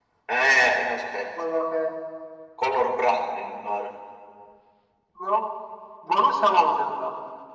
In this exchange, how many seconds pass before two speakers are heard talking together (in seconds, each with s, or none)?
none